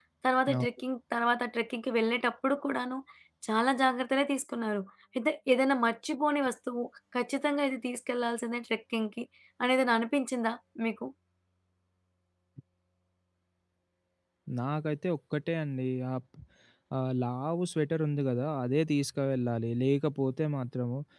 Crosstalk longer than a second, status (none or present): none